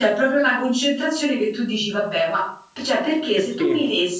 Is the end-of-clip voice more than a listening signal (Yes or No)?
No